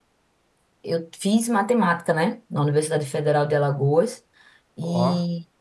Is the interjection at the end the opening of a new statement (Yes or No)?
No